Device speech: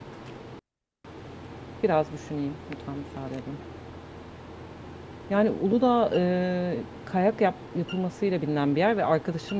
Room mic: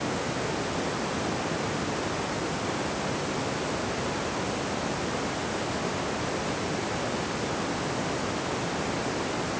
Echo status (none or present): none